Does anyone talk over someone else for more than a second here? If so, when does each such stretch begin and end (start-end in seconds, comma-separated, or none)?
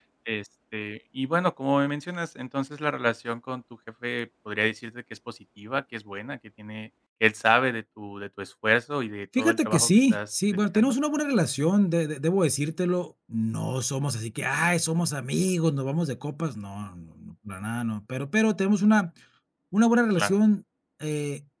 9.4-10.9